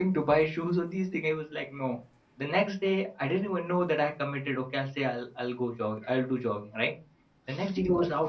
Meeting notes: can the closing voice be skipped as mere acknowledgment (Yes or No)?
Yes